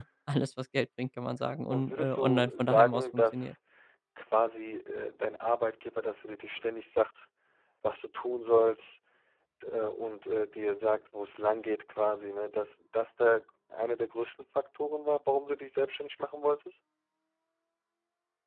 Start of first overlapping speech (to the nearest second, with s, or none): 2 s